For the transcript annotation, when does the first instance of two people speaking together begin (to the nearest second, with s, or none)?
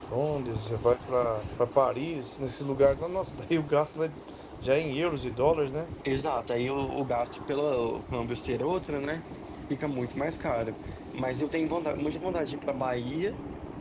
none